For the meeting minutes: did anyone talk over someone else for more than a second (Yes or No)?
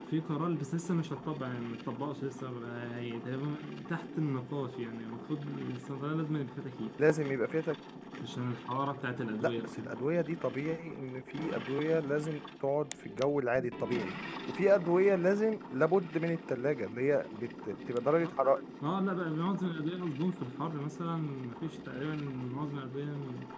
No